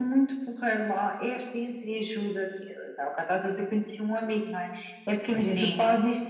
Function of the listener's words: listening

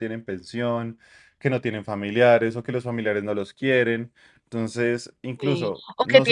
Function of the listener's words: taking over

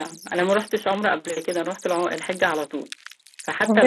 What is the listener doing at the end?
taking over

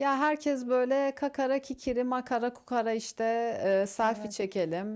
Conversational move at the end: listening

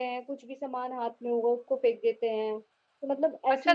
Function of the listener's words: taking over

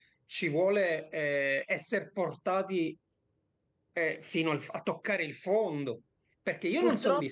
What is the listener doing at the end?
listening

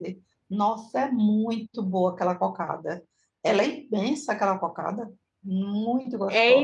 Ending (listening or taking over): taking over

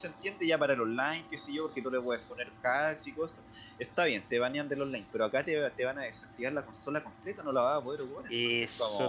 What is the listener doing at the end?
taking over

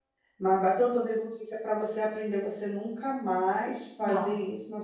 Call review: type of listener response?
listening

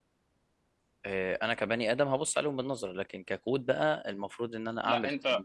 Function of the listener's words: listening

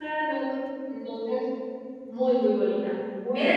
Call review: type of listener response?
taking over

